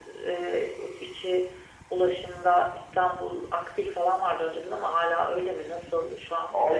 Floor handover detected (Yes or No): Yes